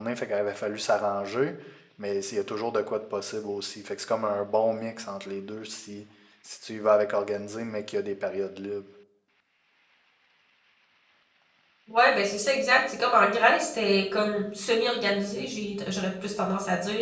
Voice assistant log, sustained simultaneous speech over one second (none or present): none